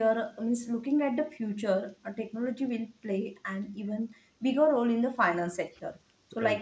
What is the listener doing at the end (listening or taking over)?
listening